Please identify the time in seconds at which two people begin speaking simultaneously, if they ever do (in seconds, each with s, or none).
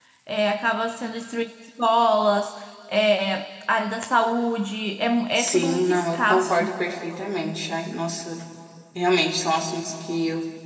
5.3 s